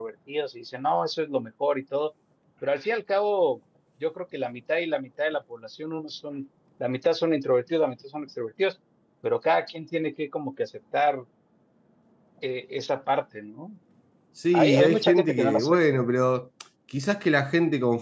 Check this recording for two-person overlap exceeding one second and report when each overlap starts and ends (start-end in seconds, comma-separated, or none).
14.5-15.8